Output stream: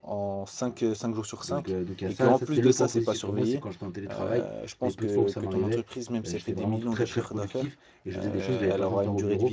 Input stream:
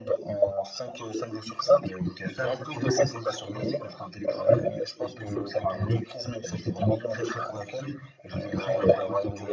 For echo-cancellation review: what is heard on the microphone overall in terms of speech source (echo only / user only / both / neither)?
echo only